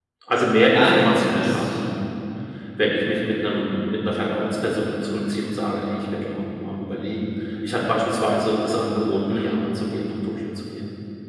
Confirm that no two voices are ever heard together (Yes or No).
No